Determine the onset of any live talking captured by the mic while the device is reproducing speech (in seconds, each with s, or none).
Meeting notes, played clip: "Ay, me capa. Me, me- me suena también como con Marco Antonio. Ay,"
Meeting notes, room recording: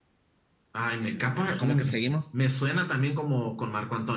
1.0 s